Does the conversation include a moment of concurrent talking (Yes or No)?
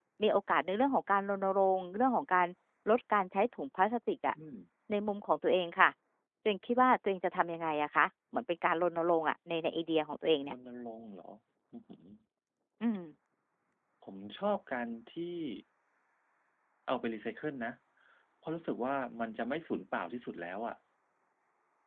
No